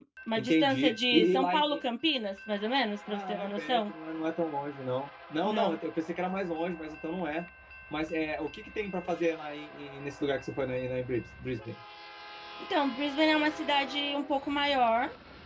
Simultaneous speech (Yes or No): Yes